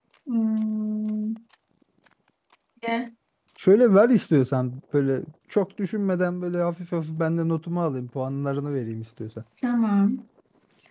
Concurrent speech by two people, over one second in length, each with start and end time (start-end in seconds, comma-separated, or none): none